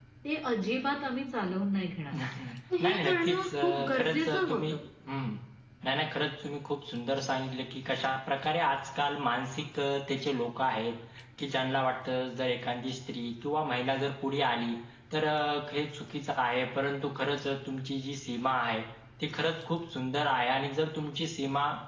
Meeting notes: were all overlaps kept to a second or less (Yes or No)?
No